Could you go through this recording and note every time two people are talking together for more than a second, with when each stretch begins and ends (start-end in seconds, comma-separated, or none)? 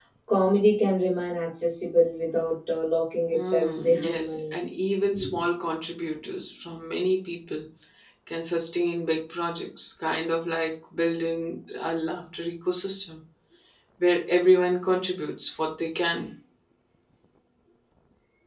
3.3-4.5